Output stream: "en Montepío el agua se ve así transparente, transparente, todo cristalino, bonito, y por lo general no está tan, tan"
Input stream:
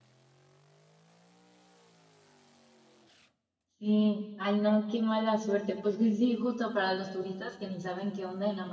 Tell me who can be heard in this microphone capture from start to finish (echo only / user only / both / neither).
user only